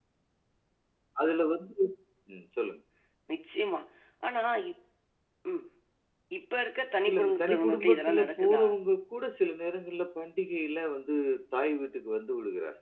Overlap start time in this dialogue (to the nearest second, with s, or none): 7 s